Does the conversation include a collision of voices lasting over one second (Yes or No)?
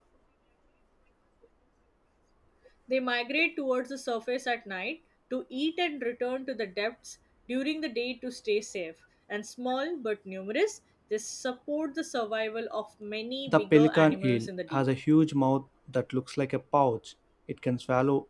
Yes